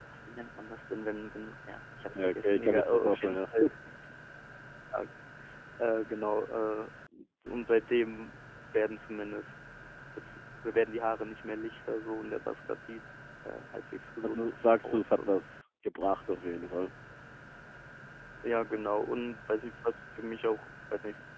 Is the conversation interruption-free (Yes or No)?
No